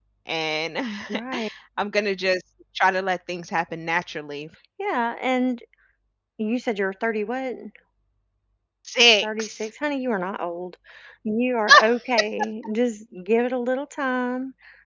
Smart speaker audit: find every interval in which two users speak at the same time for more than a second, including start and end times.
none

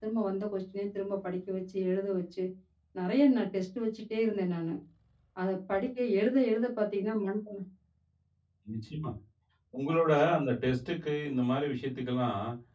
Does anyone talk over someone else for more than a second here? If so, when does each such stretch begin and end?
none

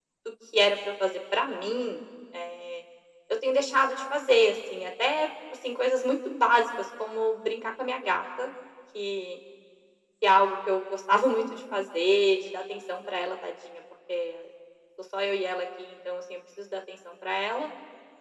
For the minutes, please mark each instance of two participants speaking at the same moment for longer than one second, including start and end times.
none

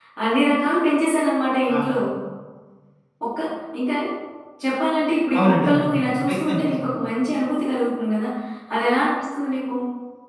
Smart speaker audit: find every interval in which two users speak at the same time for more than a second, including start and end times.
5.4-6.7

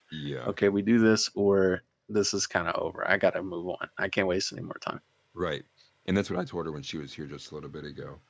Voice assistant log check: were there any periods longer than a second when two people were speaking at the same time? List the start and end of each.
none

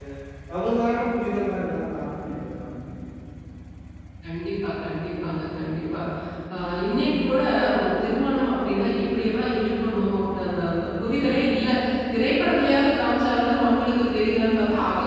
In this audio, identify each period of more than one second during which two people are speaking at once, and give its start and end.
none

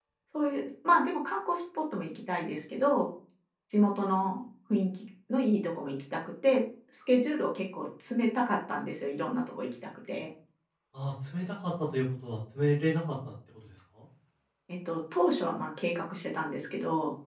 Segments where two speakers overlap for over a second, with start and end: none

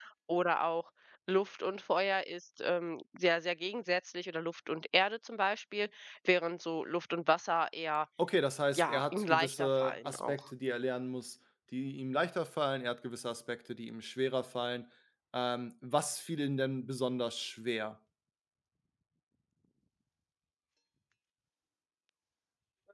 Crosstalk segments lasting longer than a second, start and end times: 8.7-10.4

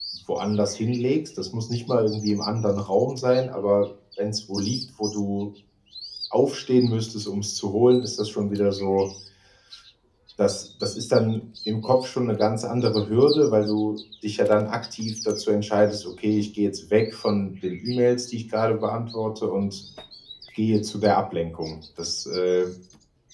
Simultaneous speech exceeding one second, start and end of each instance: none

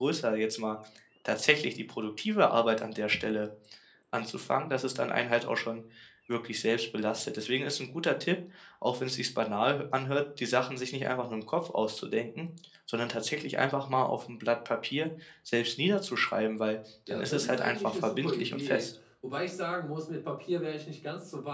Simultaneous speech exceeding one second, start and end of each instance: 17.1-18.9

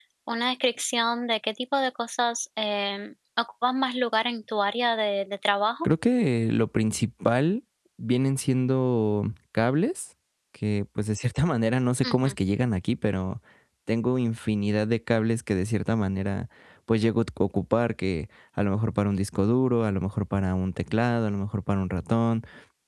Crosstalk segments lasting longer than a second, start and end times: none

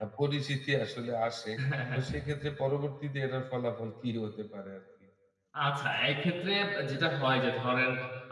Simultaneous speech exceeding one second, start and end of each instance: none

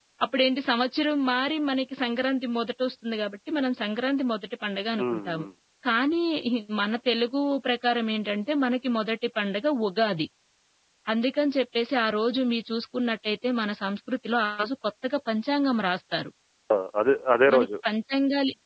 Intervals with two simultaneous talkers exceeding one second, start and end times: none

